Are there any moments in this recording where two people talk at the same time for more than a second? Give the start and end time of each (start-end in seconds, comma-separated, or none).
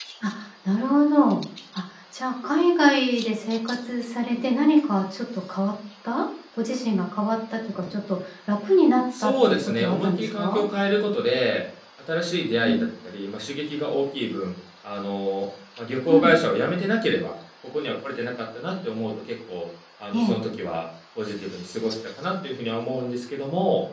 9.2-10.6